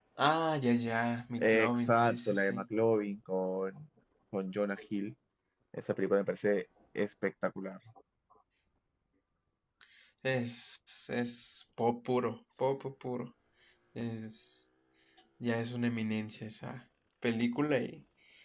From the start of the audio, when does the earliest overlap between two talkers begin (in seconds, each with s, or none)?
1.4 s